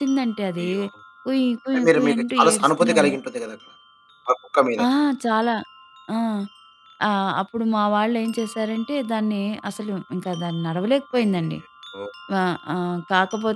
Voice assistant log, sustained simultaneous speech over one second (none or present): present